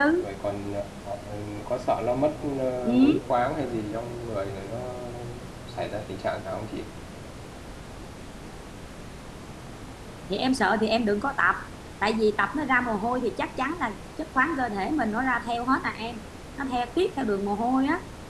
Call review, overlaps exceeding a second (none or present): none